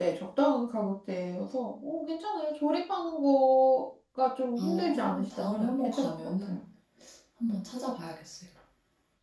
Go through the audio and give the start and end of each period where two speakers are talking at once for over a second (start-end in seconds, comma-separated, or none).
4.6-6.6